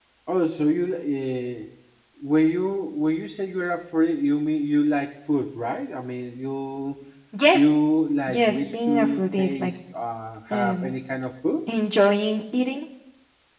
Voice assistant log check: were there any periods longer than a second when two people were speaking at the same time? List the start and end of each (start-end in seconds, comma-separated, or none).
8.3-9.7